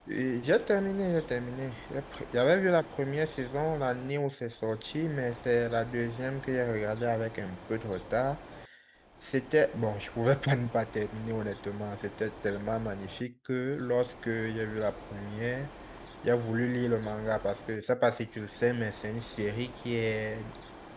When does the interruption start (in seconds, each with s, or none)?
none